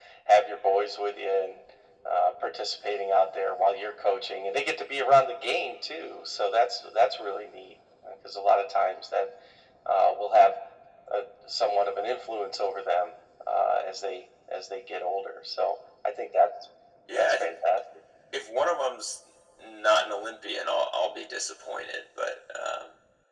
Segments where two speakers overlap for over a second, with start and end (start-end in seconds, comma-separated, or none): none